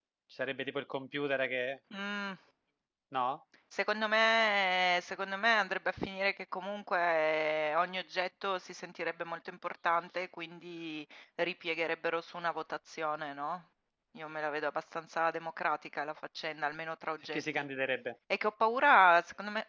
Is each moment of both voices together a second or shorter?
Yes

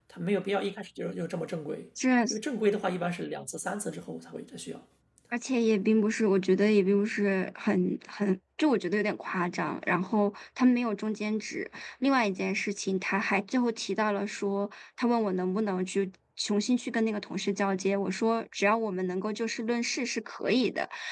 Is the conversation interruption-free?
Yes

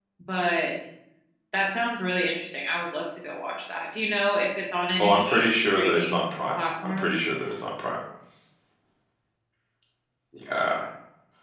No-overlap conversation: No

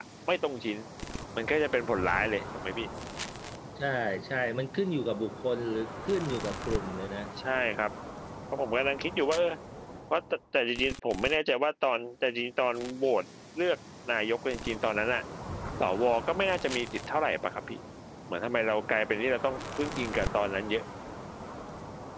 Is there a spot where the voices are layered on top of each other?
No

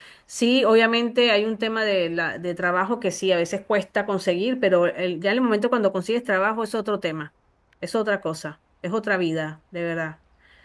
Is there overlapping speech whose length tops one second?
No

